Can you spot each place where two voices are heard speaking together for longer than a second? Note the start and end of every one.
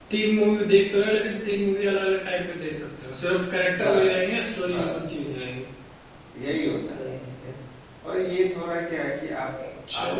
3.7-5.2

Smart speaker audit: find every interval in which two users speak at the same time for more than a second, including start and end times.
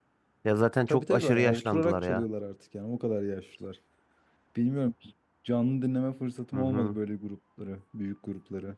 0.9-2.2

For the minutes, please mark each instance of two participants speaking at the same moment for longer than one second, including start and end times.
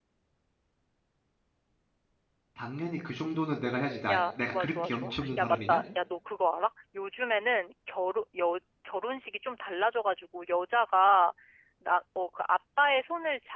4.1-5.8

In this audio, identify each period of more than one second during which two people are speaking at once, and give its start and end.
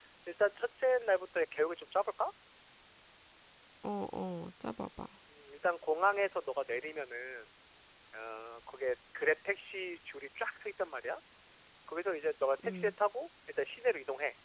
none

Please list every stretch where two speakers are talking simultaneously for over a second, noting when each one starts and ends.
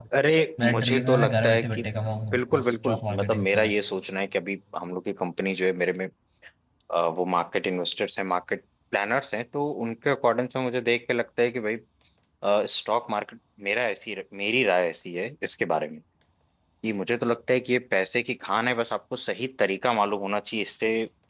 0.6-1.8, 2.3-3.6

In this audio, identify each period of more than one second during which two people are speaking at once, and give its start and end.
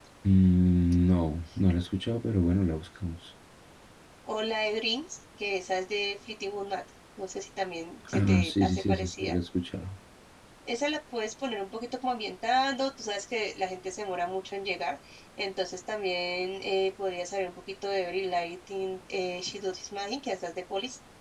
8.1-9.3

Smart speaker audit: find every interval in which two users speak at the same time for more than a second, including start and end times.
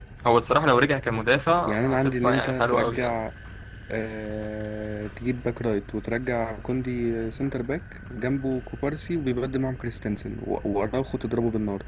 1.7-3.1

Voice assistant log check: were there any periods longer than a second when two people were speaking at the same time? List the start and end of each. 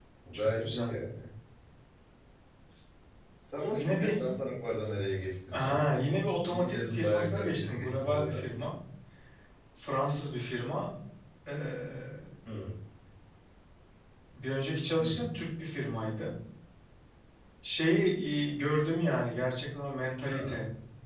6.5-8.5

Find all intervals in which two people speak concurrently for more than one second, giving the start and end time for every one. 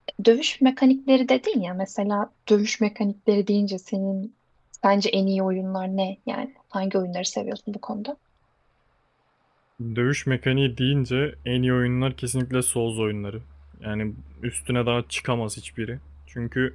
none

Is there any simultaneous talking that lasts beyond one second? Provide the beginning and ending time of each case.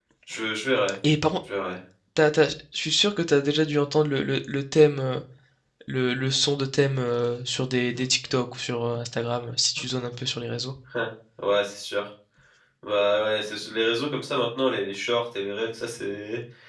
none

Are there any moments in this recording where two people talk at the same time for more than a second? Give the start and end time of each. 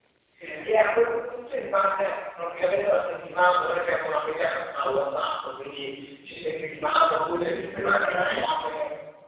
6.3-8.5

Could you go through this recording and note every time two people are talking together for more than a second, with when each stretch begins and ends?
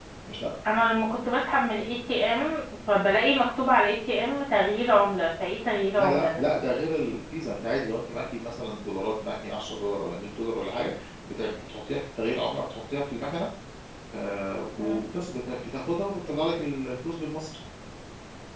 none

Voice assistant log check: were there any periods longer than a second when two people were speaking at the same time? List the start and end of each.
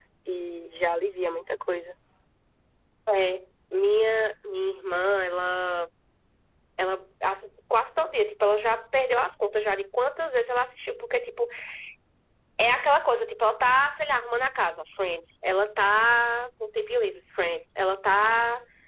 none

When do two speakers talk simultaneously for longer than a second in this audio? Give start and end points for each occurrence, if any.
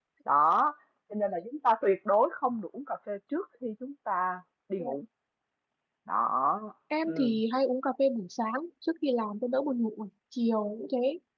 none

